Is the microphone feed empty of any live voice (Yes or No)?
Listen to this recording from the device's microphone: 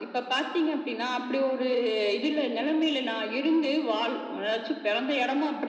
Yes